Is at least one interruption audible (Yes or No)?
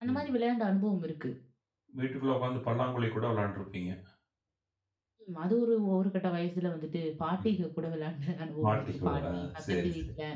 Yes